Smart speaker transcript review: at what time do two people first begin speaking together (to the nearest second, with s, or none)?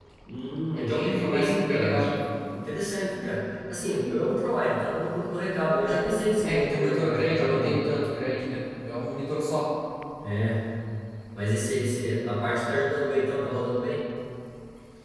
1 s